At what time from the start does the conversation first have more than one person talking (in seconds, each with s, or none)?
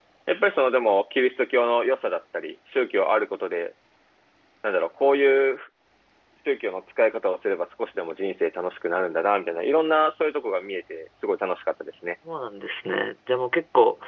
none